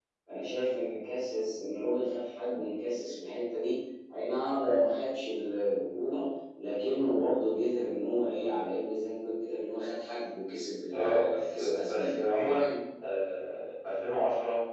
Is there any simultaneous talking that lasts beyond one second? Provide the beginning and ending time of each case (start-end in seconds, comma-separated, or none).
10.9-12.8